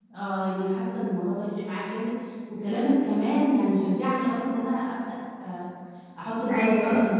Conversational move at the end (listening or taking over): listening